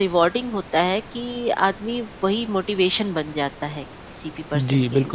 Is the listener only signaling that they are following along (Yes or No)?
No